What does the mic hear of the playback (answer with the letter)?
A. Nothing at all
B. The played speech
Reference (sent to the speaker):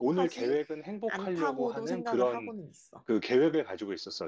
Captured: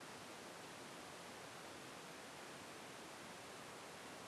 A